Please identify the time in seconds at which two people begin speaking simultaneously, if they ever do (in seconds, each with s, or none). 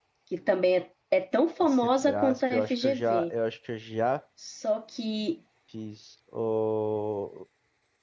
1.6 s